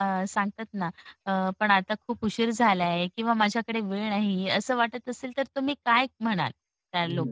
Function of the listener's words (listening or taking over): taking over